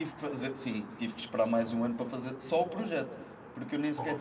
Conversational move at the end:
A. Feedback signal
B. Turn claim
A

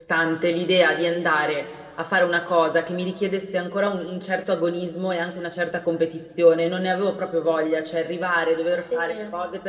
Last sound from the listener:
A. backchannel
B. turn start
A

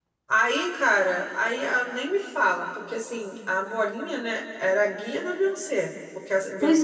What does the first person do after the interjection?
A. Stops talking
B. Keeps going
B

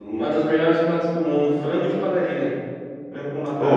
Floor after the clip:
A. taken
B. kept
A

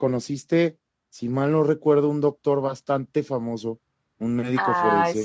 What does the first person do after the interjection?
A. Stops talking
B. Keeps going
A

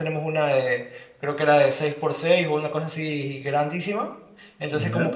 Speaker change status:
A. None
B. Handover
A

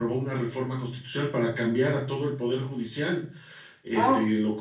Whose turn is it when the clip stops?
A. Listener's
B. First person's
B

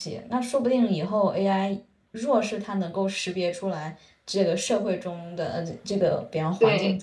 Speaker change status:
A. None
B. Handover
A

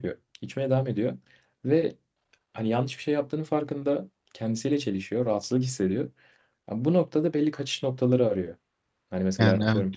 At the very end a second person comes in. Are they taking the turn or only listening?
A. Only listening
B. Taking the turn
A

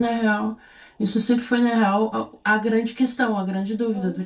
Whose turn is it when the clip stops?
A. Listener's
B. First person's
B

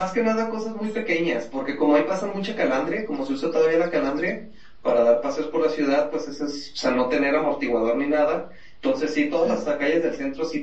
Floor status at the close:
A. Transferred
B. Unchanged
B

